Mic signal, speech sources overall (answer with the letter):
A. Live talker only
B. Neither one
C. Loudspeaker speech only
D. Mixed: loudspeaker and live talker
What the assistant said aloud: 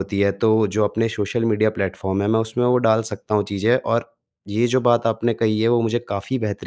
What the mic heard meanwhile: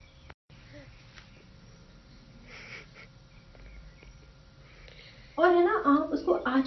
A